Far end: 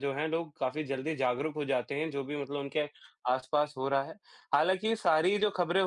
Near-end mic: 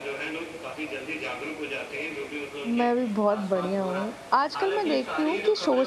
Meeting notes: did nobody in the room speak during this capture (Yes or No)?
No